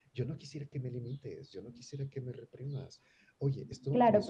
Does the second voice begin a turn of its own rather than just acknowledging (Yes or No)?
Yes